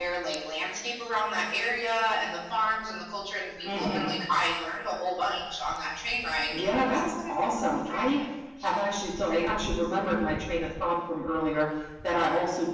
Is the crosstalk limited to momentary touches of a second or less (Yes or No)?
No